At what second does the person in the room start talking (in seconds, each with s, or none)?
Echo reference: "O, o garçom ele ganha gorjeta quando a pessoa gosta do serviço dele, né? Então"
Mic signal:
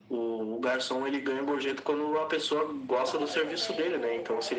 2.9 s